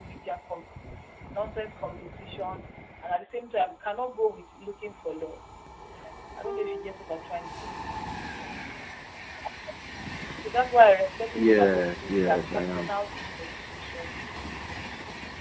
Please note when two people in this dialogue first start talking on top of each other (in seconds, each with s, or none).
11.3 s